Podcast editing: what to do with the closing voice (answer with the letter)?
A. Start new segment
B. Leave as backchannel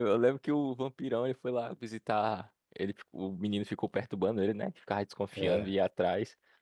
B